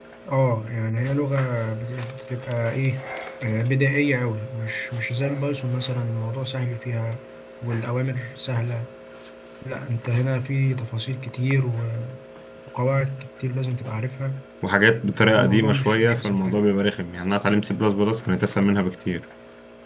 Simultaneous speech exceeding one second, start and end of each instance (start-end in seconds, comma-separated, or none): 15.4-16.7